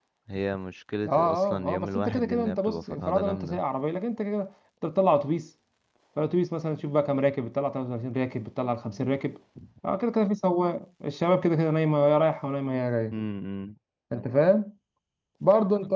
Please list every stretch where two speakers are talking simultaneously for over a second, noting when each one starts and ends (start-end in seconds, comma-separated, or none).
1.1-3.6